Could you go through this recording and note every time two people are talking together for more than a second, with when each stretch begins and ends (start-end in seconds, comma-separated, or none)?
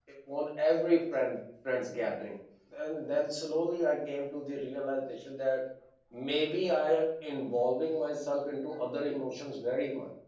none